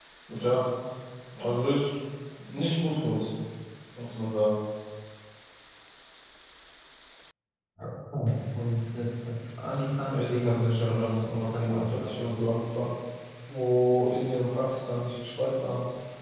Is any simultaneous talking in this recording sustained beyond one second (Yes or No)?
Yes